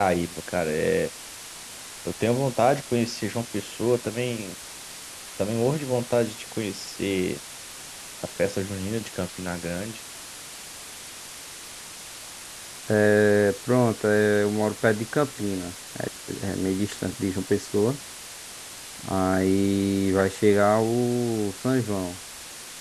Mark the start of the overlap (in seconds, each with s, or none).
none